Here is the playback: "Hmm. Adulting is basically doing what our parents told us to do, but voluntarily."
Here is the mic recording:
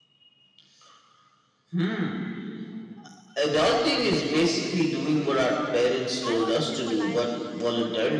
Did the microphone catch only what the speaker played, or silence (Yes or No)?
No